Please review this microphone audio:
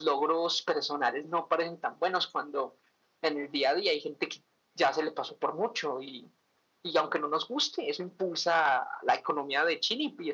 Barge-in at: none

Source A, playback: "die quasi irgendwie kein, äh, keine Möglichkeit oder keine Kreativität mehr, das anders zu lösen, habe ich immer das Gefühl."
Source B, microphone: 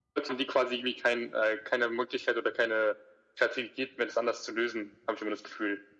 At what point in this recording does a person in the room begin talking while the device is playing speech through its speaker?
none

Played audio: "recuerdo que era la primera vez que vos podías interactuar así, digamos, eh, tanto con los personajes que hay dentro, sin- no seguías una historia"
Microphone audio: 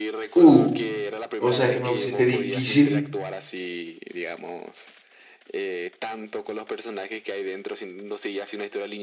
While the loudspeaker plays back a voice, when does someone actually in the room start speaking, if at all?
0.3 s

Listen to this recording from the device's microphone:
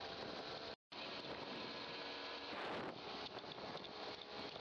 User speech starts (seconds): none

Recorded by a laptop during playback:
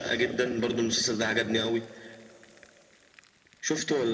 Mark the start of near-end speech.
none

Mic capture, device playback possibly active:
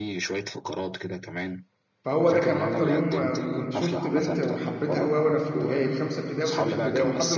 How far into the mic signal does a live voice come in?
2.0 s

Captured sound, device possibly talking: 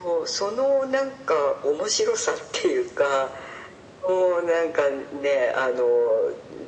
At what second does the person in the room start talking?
none

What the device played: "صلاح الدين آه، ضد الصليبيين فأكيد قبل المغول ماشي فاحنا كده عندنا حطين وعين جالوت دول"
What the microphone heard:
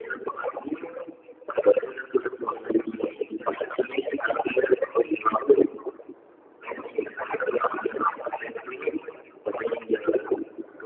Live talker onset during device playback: none

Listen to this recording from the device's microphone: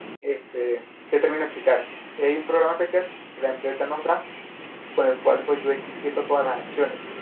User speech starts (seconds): none

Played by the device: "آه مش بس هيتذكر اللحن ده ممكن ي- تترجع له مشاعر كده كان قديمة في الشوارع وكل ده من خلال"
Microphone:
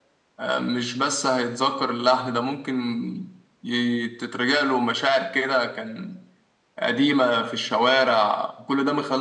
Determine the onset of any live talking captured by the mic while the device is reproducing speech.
none

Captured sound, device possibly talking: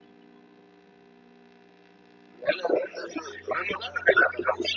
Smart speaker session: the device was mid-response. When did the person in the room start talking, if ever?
none

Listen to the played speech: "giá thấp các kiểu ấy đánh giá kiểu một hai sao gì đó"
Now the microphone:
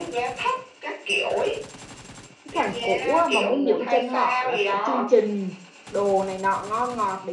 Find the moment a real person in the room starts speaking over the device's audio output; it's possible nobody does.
2.4 s

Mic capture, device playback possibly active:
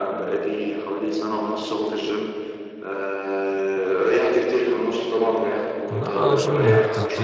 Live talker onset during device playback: 5.9 s

